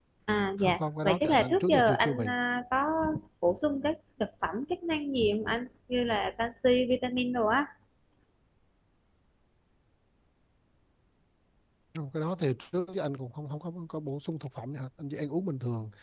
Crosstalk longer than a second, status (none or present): present